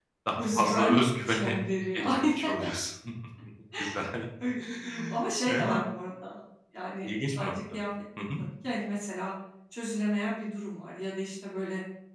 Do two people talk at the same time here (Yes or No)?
Yes